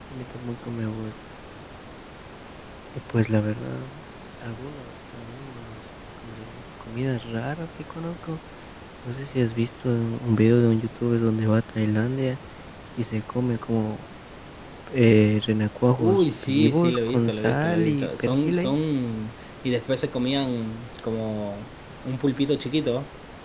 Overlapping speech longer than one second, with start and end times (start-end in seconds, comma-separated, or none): 16.0-18.8